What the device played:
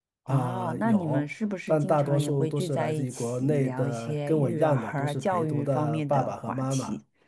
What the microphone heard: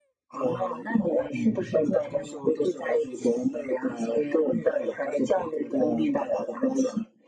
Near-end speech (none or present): present